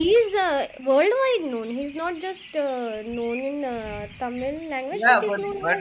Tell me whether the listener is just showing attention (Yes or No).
No